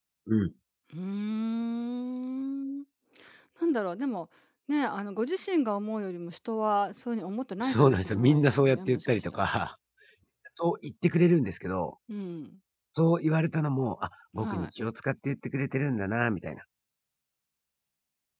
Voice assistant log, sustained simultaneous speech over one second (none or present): present